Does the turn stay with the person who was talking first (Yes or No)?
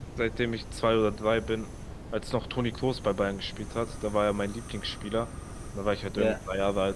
Yes